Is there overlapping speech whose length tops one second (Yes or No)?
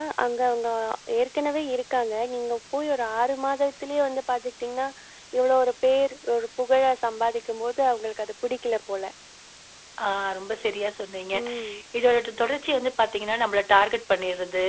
No